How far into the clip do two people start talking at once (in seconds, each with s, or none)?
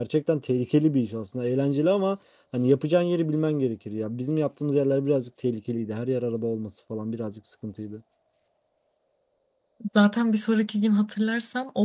none